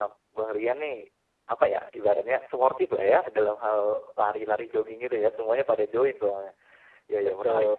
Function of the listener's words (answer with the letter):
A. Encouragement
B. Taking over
A